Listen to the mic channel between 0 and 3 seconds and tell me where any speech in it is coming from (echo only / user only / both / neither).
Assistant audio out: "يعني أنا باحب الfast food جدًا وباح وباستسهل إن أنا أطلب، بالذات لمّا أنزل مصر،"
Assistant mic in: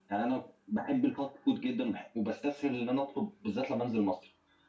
echo only